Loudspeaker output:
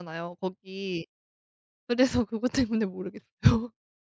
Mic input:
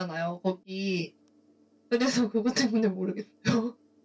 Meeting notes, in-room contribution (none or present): none